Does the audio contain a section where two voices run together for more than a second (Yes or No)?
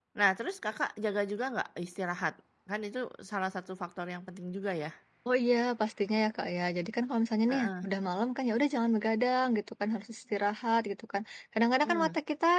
No